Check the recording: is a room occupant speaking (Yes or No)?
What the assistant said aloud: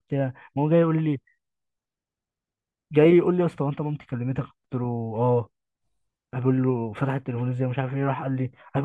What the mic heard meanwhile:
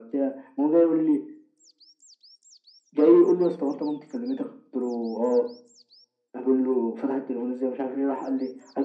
No